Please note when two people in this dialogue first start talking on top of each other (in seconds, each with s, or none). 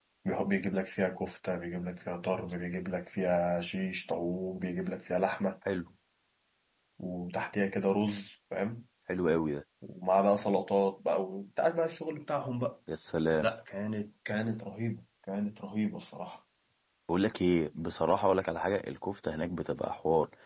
none